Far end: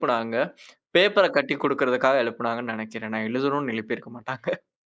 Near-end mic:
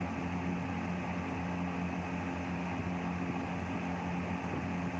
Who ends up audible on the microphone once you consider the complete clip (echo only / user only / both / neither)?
neither